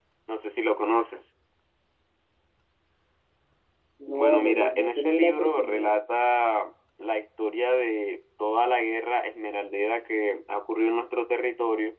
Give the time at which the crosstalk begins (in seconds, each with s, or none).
4.1 s